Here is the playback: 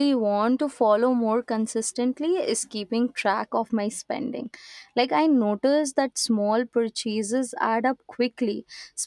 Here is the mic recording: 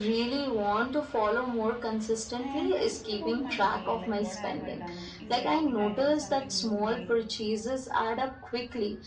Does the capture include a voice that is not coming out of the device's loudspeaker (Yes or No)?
Yes